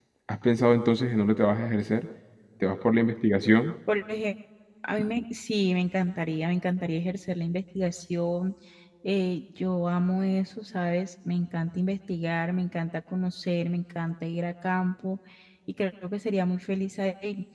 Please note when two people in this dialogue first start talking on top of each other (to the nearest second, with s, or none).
none